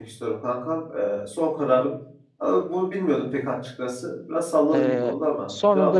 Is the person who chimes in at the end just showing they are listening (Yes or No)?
No